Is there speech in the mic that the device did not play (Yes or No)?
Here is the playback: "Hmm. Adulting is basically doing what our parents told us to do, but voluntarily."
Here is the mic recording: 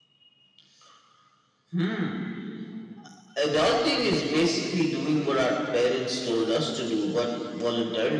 No